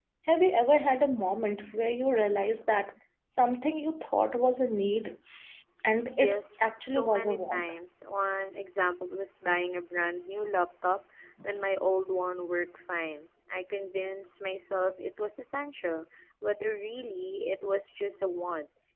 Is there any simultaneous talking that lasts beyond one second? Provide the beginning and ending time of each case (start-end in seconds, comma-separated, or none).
6.2-7.7